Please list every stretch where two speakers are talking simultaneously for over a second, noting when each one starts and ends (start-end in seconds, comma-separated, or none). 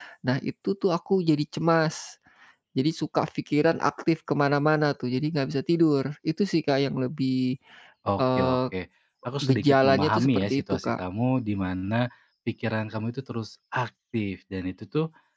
9.4-11.0